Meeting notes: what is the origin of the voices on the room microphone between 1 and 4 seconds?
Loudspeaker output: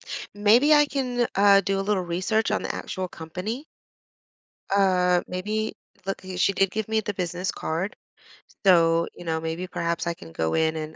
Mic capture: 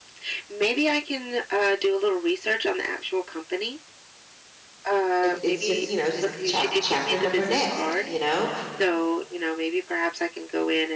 echo only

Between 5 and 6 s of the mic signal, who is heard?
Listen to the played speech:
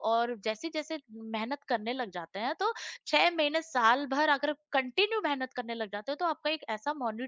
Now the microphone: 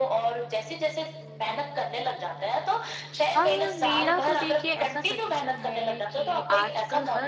both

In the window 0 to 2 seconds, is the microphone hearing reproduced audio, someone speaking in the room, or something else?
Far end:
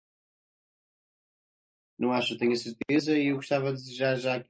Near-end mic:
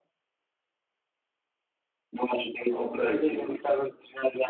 neither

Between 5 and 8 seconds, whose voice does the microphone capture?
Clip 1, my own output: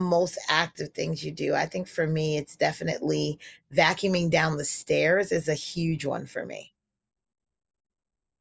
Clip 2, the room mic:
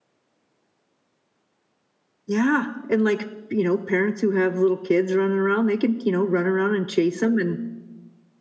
user only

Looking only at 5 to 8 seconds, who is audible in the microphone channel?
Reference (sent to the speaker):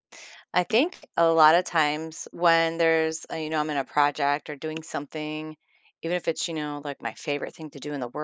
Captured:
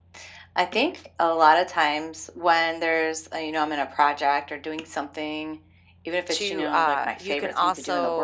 both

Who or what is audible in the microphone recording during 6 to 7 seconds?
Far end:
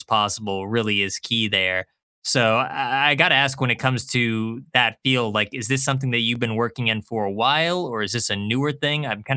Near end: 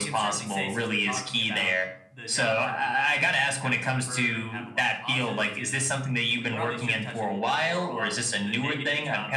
both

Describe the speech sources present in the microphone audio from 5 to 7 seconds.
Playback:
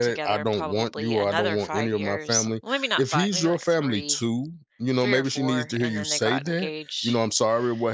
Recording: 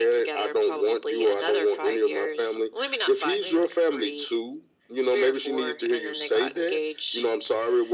echo only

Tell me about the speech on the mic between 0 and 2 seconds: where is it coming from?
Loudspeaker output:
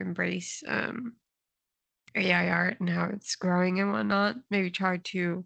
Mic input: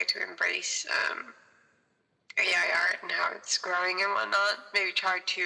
echo only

